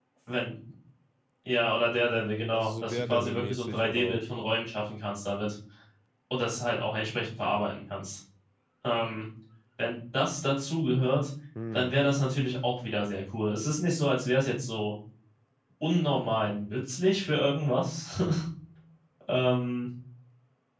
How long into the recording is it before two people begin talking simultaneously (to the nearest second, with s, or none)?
3 s